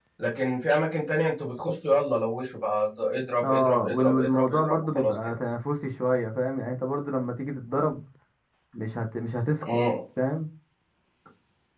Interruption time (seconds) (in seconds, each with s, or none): 3.4 s